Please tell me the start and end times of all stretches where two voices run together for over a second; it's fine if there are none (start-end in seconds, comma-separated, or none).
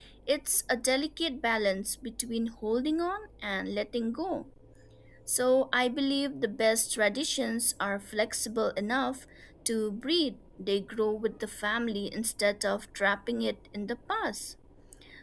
none